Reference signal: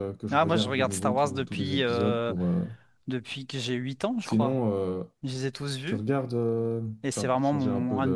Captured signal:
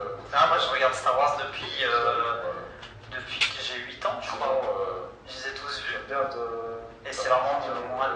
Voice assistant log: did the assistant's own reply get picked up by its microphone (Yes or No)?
Yes